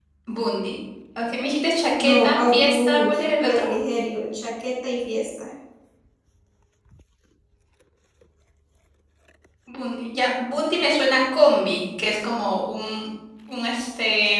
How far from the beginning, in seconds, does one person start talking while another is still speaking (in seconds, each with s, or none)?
2.0 s